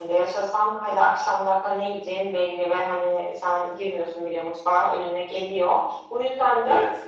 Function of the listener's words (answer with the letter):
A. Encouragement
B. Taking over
A